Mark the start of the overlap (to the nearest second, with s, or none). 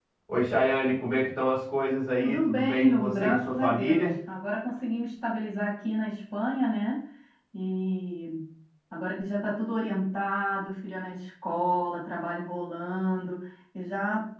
2 s